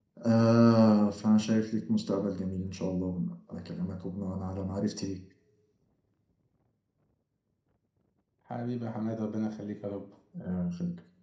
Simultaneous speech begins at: none

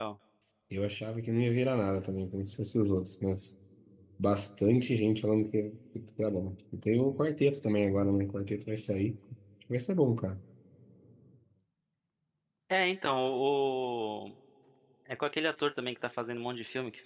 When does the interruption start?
none

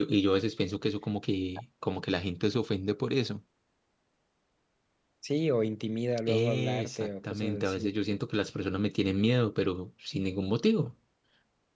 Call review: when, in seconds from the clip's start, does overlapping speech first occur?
6.3 s

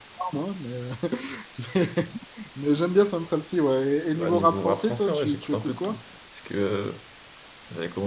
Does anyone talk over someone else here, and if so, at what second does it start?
4.1 s

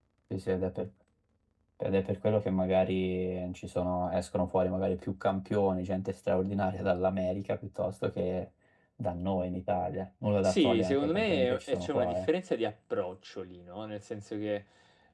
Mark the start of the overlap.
10.4 s

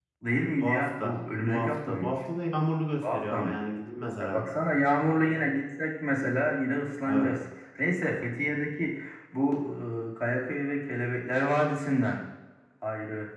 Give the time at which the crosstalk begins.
0.6 s

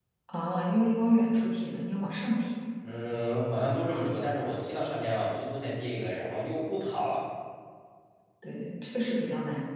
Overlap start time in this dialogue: none

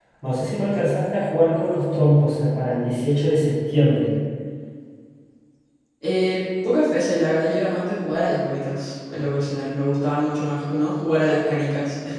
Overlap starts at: none

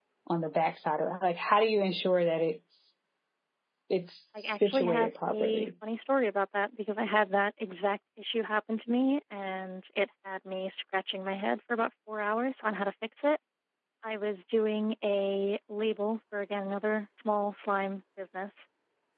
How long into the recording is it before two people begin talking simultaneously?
4.4 s

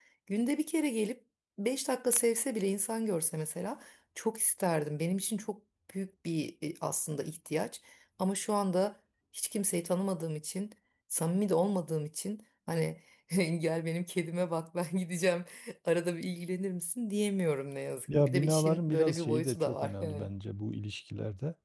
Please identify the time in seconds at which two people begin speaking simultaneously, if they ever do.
18.1 s

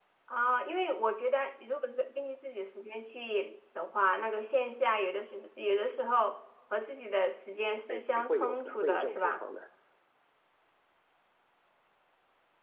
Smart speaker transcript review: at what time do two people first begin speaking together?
7.9 s

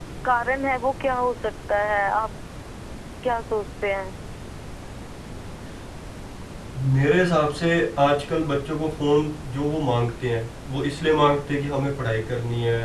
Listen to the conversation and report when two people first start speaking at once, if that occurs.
none

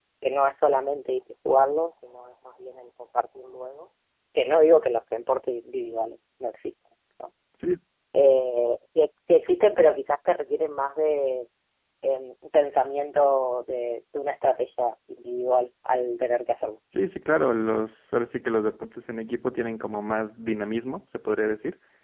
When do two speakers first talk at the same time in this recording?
none

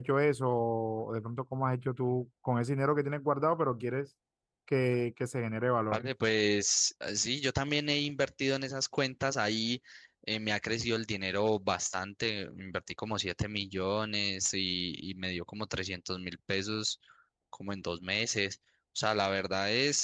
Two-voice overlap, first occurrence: none

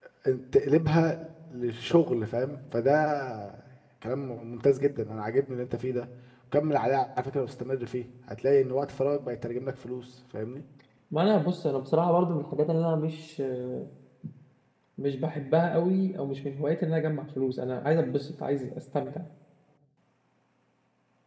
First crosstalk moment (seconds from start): none

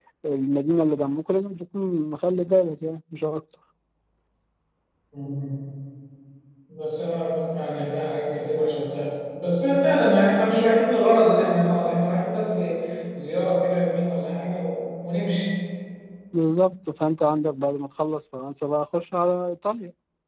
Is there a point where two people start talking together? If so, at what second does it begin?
none

